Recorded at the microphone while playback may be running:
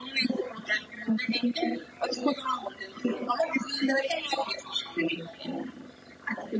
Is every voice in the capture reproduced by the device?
Yes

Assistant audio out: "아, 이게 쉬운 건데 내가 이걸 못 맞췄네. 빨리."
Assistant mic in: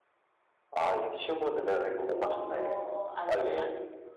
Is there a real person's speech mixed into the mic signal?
Yes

